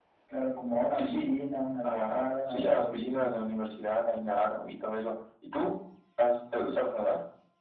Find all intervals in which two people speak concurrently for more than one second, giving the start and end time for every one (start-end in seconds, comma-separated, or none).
1.8-3.3